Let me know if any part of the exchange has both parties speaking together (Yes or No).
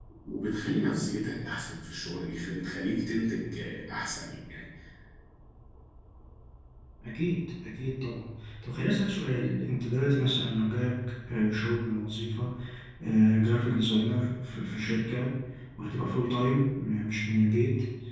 No